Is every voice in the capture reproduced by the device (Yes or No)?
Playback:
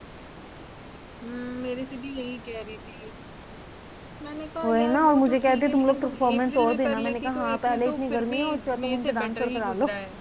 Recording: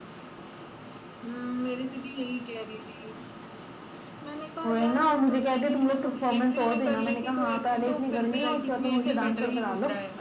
No